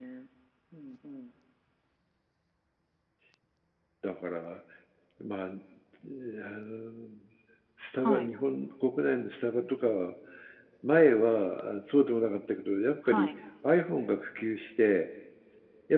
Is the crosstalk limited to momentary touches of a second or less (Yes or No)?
Yes